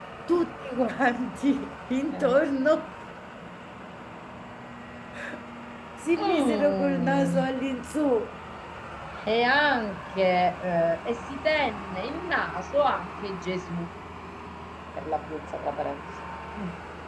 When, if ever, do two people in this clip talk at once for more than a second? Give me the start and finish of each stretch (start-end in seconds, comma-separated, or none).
6.2-7.5